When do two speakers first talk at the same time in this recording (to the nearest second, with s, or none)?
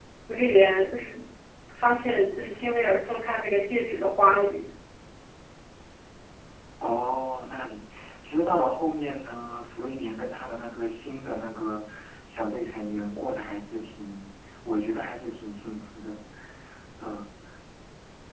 none